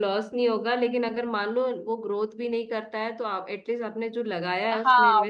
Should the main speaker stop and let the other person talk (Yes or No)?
Yes